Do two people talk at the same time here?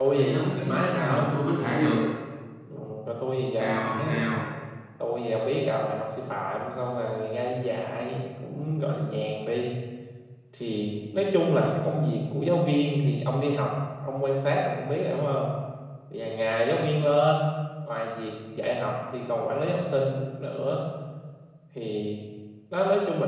Yes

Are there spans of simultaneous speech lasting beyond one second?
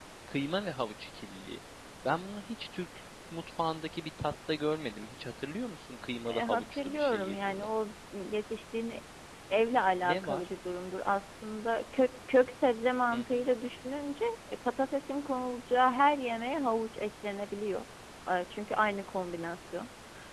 Yes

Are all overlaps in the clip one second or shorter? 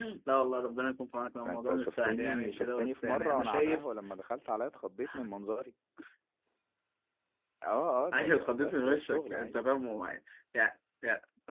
No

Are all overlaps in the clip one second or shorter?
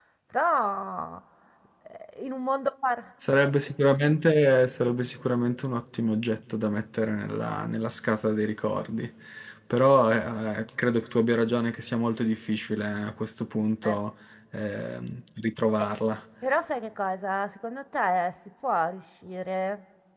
Yes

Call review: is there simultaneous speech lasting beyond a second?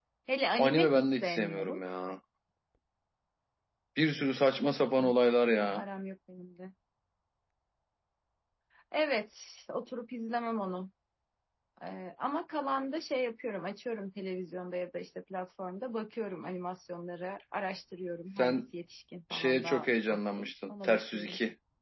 Yes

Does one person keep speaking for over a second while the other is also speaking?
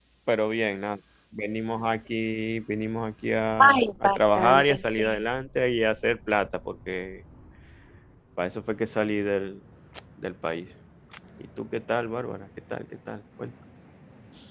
Yes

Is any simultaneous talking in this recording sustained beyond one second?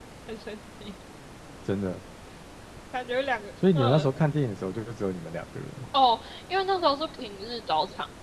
No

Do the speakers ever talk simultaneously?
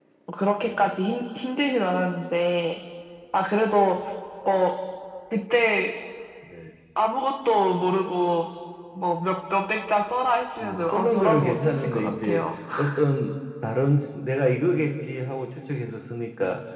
Yes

